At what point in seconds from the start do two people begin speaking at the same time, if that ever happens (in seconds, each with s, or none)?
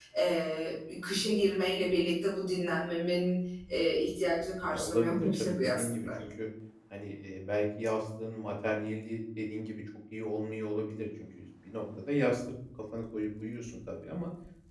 4.7 s